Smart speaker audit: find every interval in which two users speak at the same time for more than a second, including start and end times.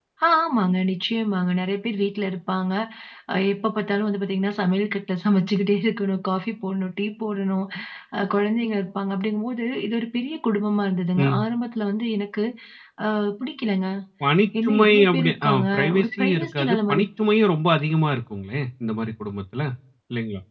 14.6-17.0

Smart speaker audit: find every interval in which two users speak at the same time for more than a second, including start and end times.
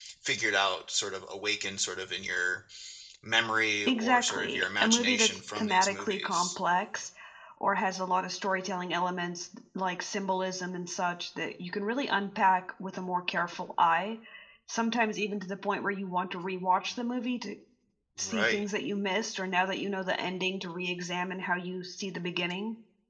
3.9-6.6

